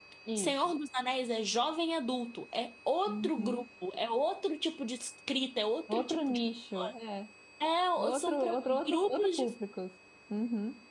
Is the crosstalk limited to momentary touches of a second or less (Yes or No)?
No